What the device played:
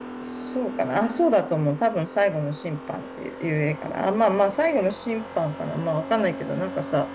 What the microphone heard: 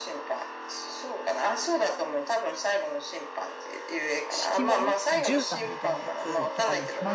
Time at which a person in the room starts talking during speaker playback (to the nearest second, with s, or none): 4 s